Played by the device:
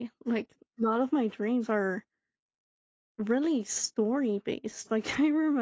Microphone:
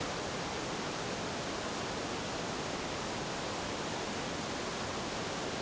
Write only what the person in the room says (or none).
none